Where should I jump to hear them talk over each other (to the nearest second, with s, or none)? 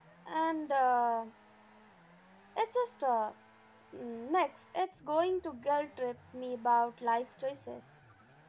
none